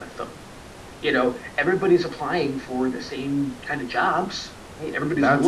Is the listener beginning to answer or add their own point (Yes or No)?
Yes